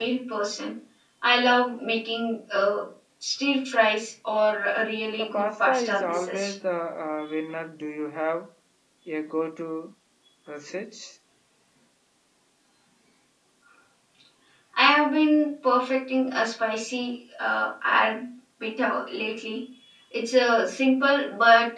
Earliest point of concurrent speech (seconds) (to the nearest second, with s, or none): 5 s